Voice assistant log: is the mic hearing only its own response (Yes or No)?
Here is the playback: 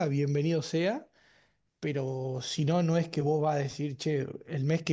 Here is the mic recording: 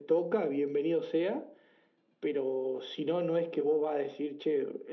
Yes